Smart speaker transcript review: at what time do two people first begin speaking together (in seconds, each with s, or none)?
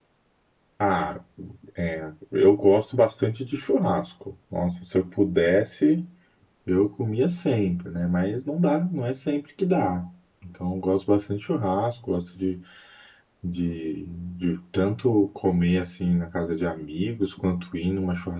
none